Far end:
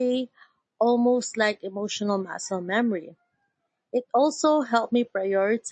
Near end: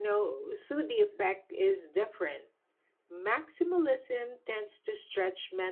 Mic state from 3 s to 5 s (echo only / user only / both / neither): user only